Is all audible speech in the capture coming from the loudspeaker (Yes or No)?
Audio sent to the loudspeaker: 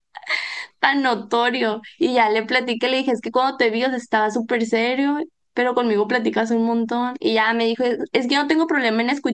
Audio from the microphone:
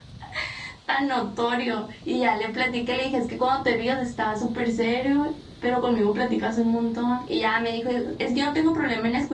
Yes